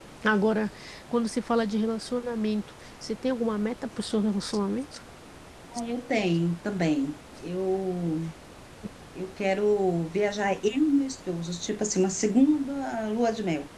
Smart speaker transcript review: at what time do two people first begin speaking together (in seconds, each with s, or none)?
none